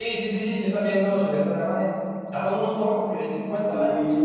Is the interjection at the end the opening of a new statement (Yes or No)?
Yes